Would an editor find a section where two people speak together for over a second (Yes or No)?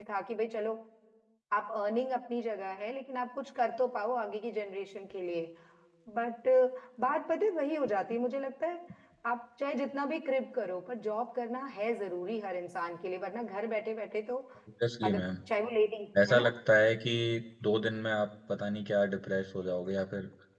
No